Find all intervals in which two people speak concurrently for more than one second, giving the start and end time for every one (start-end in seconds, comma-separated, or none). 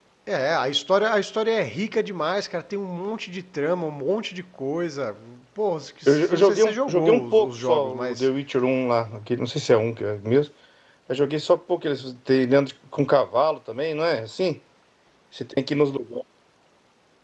6.1-8.3